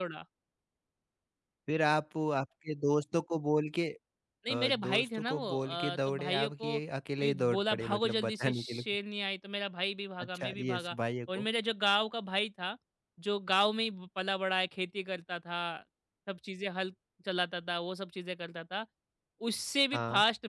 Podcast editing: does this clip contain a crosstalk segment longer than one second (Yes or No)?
Yes